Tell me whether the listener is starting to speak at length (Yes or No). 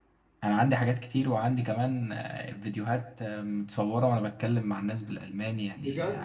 Yes